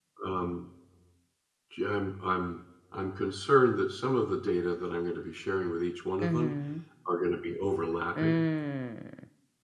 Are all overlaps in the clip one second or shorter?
Yes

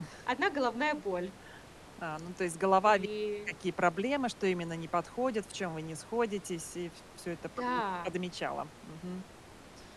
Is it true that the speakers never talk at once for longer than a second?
Yes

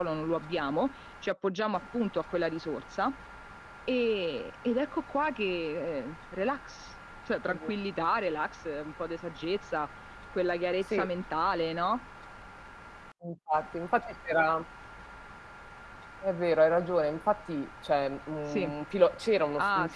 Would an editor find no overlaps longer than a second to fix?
Yes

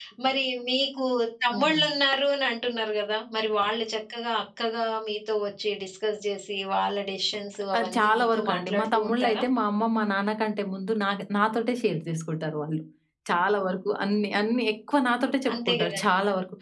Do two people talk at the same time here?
Yes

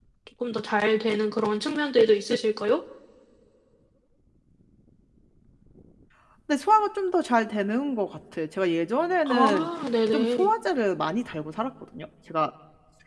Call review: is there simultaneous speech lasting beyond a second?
No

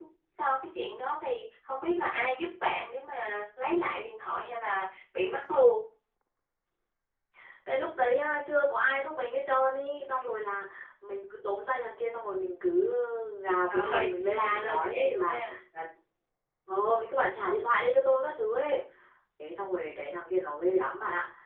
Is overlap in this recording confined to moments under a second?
No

